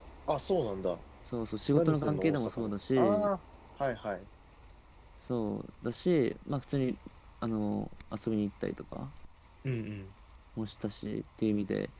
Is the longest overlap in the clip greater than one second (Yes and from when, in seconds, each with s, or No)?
Yes, from 1.7 s